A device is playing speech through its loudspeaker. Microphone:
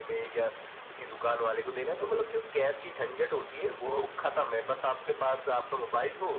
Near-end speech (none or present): none